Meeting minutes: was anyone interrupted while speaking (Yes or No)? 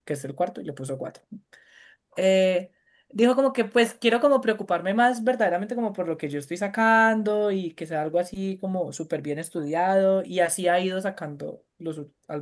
No